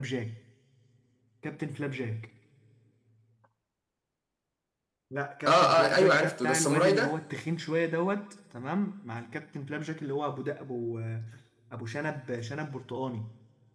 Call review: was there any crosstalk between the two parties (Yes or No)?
Yes